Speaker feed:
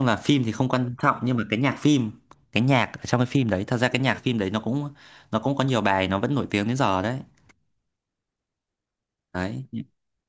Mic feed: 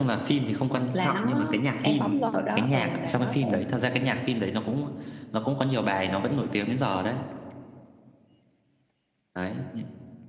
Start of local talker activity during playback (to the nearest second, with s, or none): 1 s